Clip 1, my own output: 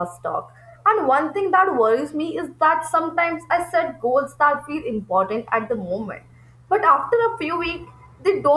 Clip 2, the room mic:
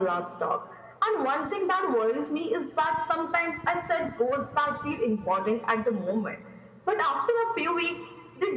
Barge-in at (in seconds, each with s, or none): none